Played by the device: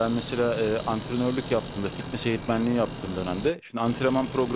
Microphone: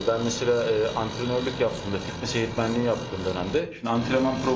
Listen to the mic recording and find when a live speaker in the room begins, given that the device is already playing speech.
none

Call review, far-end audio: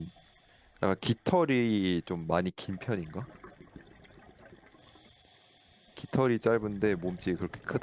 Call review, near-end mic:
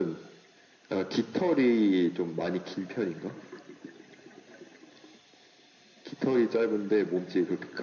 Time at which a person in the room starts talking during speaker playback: none

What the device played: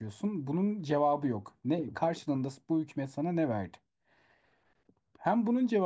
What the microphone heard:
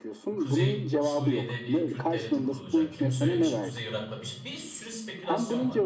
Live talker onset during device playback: 0.4 s

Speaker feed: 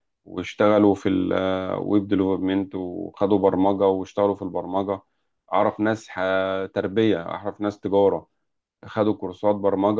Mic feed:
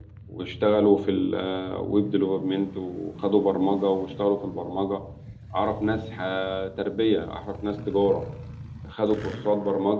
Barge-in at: none

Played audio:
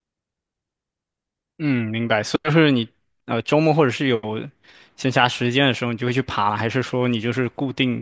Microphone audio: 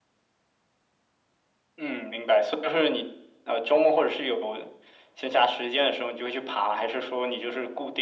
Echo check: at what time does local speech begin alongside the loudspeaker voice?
none

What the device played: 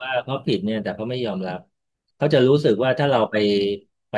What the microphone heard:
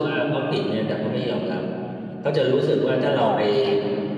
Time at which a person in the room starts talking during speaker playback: 3.2 s

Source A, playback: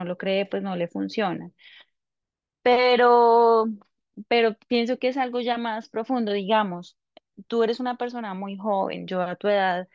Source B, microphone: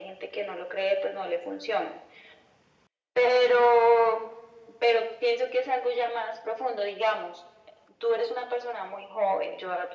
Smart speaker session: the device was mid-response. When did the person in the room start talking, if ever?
none

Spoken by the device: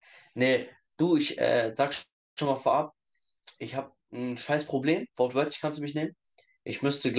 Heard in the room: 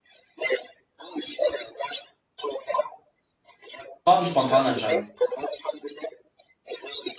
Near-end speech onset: 4.1 s

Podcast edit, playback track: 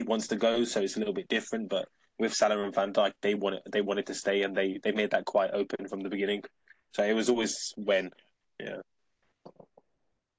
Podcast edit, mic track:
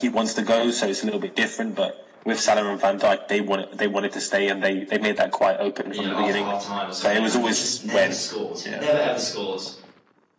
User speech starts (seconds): 5.9 s

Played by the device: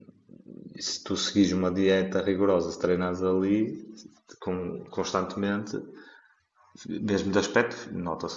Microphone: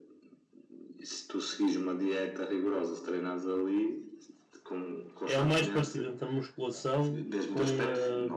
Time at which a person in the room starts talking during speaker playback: 5.2 s

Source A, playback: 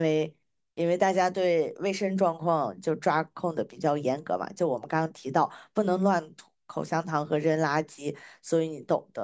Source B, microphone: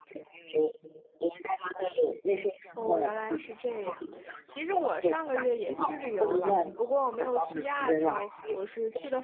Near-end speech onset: 2.7 s

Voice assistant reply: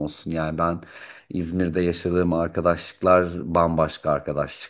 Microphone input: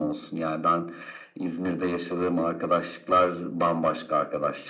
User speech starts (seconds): none

